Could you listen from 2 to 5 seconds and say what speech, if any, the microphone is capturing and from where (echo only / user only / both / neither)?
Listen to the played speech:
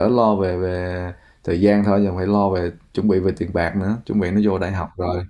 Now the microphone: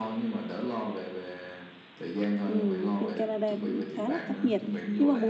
both